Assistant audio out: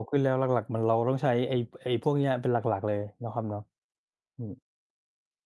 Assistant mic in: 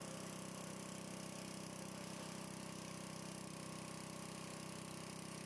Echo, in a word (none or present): none